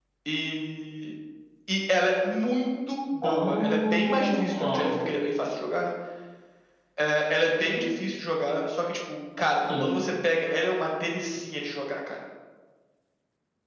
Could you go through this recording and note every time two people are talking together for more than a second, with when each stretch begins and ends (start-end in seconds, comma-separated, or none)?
3.2-4.9